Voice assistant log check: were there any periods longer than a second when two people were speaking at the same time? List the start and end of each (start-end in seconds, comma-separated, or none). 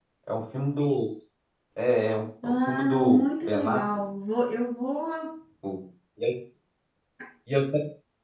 2.4-4.0